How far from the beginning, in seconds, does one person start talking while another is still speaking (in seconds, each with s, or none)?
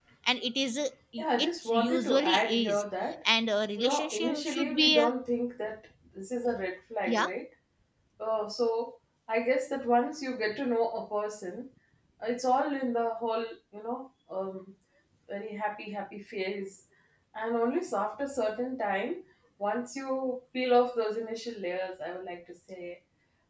1.4 s